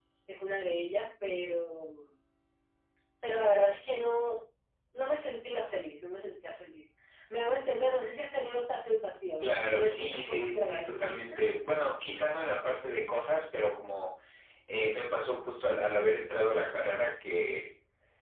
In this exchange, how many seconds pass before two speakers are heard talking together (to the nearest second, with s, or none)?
9 s